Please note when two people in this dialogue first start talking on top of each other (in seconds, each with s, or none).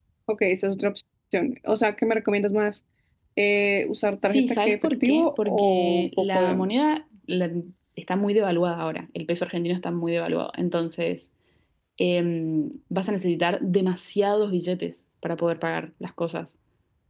4.2 s